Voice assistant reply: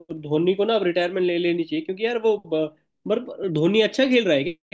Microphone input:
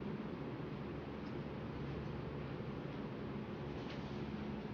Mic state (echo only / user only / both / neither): neither